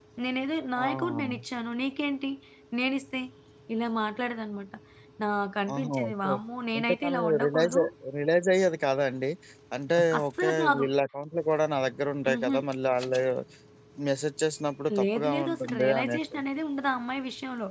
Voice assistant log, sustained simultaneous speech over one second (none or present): present